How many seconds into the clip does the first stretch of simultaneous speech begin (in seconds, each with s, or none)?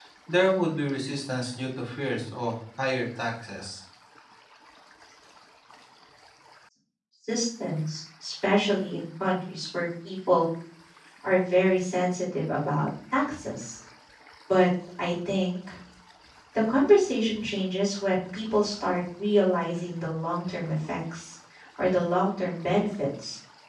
none